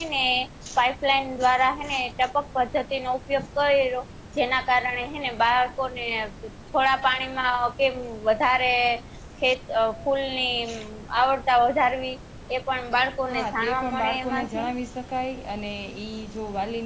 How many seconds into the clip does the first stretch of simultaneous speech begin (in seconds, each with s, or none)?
13.3 s